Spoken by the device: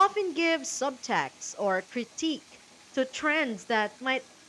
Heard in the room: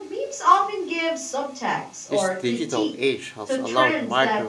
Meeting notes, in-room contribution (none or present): present